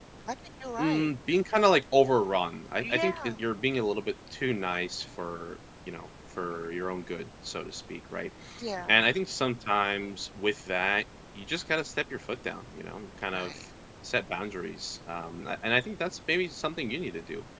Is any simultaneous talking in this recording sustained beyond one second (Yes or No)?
No